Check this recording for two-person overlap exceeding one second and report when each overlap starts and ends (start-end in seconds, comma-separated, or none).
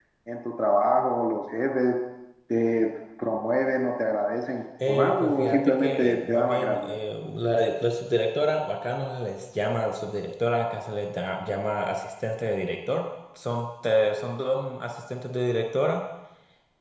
4.9-6.9